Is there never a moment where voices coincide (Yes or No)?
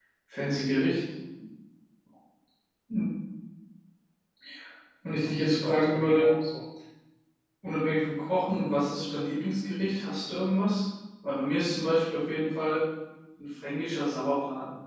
No